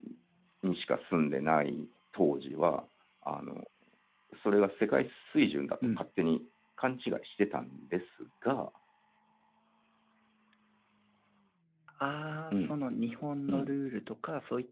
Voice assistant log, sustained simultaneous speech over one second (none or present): none